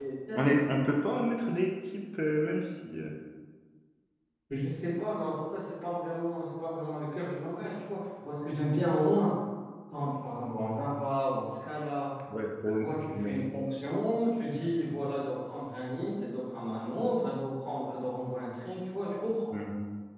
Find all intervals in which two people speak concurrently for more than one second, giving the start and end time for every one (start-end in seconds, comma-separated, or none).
none